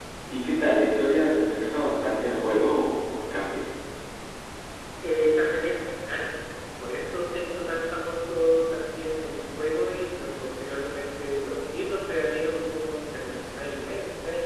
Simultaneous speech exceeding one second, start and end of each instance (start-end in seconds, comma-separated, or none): none